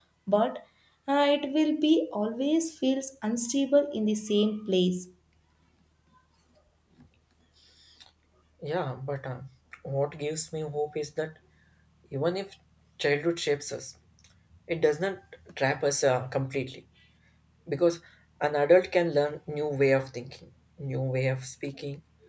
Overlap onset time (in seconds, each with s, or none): none